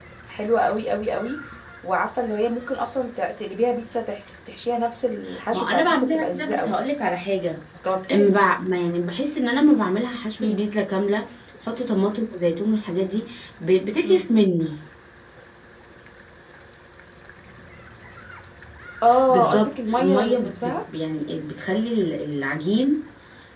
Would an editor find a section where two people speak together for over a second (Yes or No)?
Yes